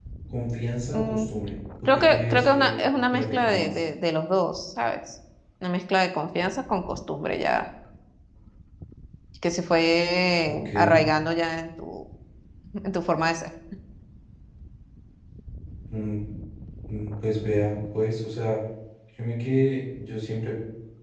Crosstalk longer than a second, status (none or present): present